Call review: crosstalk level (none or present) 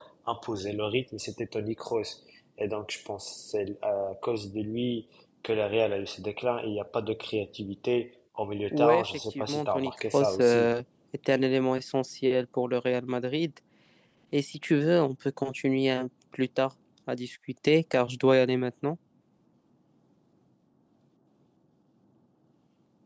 present